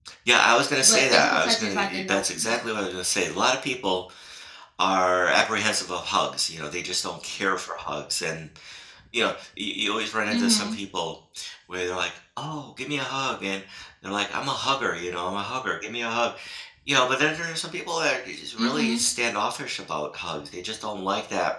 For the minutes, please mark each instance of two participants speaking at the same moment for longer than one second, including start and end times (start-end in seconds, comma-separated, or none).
0.8-2.6